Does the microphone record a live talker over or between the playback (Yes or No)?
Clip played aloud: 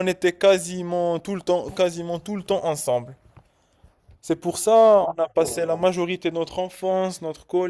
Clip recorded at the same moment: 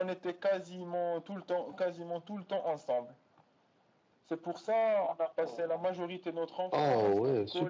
Yes